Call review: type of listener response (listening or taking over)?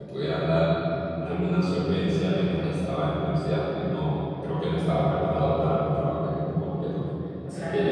listening